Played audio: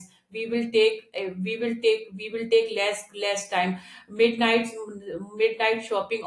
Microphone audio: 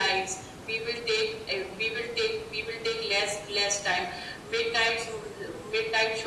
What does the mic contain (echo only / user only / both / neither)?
echo only